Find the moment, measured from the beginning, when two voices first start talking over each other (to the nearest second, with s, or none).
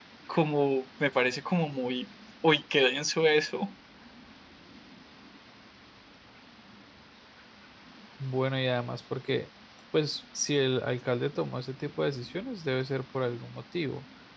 none